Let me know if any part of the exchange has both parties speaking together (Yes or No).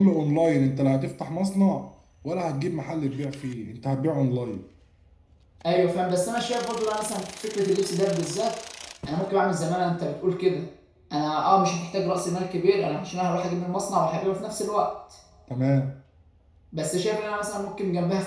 No